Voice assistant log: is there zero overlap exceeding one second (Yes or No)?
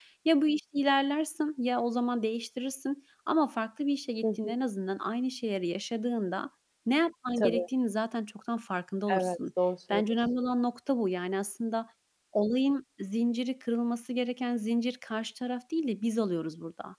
Yes